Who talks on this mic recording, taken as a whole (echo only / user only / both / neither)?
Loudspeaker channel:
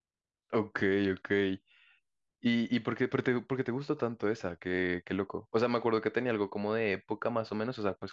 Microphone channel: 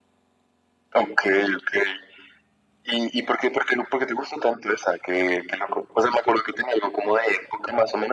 echo only